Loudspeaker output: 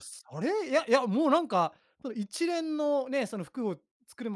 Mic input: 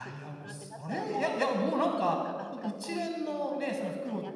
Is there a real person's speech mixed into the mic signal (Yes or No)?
Yes